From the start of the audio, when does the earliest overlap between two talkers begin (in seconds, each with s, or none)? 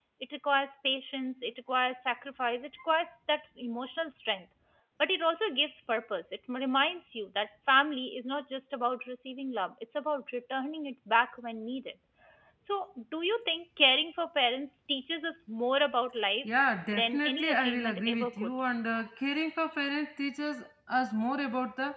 16.9 s